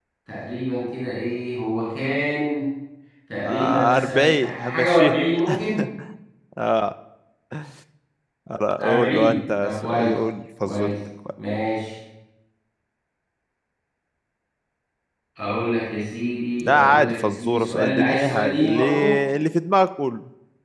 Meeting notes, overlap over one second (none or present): present